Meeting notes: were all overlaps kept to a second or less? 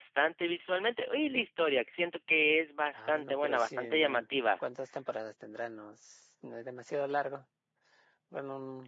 No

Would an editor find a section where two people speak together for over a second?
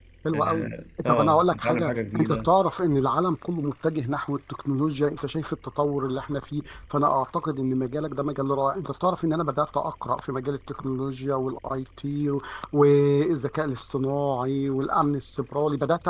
Yes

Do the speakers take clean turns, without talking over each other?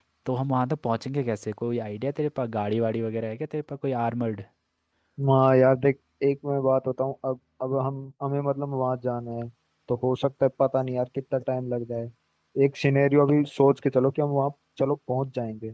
Yes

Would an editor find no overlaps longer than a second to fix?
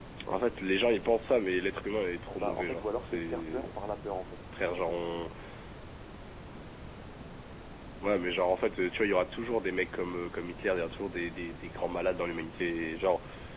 No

